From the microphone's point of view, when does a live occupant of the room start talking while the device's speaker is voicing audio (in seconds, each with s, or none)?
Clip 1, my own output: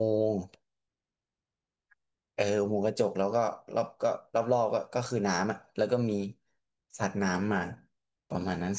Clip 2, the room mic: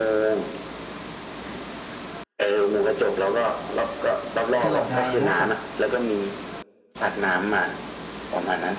4.6 s